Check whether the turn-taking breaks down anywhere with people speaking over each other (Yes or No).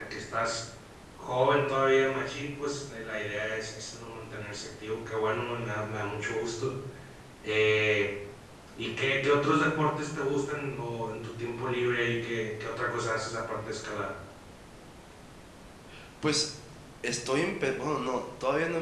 No